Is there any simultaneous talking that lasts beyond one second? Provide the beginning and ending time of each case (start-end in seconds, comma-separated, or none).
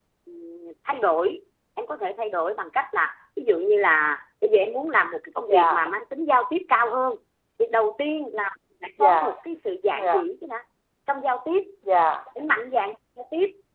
none